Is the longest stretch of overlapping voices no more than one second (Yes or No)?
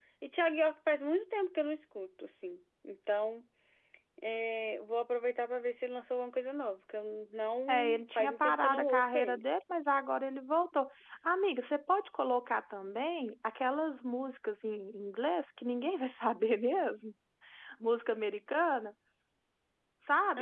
No